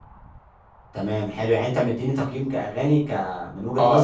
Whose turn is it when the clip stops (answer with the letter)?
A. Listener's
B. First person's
A